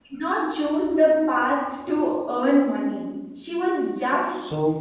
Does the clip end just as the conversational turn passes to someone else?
No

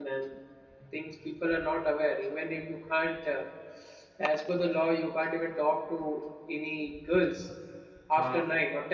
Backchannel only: Yes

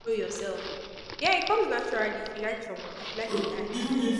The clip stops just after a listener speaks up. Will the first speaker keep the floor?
No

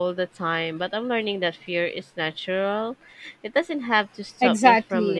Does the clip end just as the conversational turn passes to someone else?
Yes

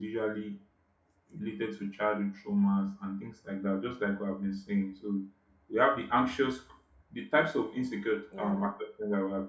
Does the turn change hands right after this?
No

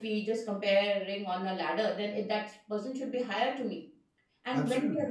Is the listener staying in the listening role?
Yes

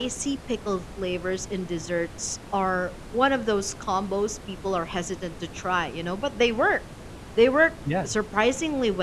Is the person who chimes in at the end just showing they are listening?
Yes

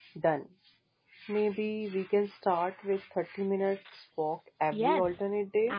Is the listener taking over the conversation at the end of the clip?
Yes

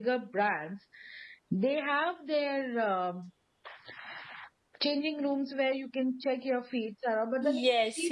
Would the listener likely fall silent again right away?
No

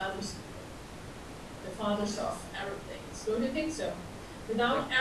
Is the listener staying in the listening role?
Yes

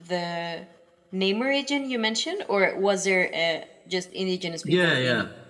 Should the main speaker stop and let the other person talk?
Yes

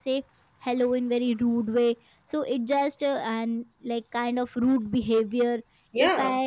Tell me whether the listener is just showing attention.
Yes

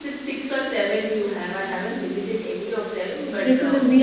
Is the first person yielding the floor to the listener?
Yes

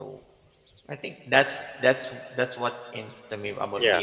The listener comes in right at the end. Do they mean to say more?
No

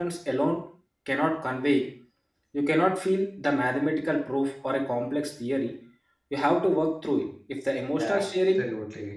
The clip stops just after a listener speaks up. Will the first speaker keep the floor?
No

